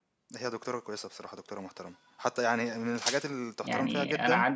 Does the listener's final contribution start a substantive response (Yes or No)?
Yes